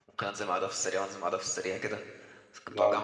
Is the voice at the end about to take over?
No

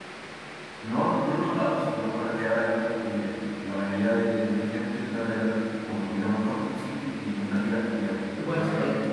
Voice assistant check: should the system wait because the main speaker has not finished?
No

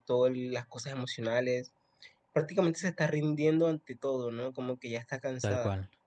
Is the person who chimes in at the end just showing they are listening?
No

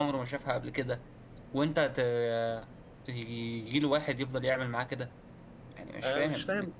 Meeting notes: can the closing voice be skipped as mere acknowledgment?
No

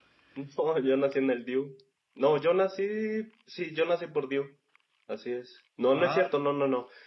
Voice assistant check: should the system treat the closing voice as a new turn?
No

